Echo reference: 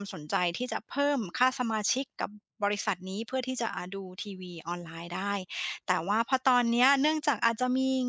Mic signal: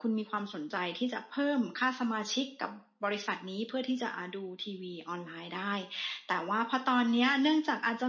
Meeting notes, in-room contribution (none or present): none